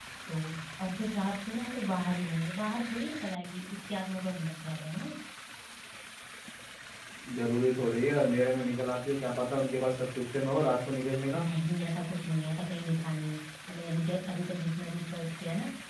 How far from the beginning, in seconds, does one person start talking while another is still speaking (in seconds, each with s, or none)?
none